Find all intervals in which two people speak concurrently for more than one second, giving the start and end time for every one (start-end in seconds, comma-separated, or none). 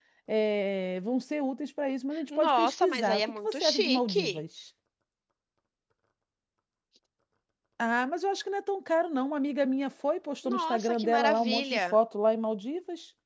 2.4-4.4, 10.4-12.0